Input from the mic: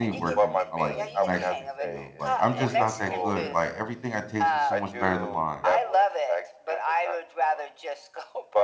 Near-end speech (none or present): present